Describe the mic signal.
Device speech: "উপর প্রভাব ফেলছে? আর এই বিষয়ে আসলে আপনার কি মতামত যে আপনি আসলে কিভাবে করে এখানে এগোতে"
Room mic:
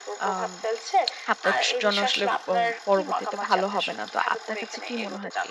both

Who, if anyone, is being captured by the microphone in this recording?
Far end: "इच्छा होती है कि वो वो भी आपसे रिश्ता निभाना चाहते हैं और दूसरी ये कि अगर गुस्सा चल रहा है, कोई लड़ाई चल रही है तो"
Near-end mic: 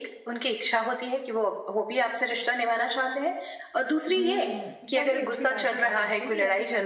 both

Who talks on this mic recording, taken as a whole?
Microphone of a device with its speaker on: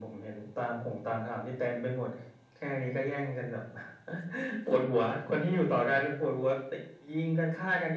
echo only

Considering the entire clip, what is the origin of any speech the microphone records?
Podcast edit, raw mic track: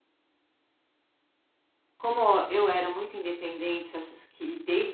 user only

